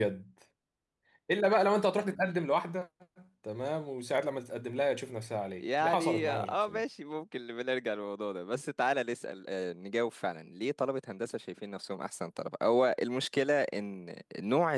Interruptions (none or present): present